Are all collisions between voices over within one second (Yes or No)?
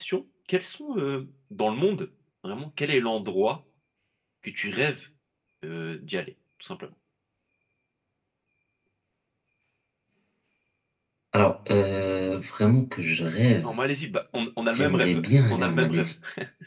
No